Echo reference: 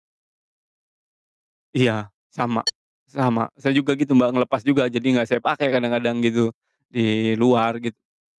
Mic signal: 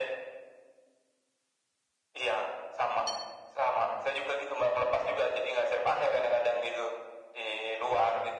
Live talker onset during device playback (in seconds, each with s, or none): none